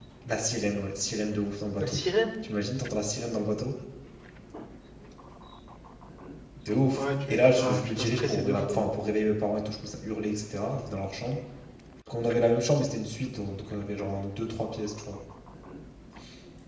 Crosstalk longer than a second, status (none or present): present